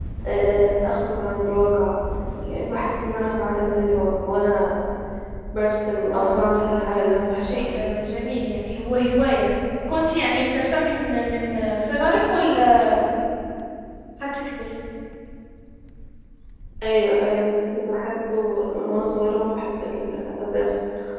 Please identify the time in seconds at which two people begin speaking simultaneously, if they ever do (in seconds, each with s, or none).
6.2 s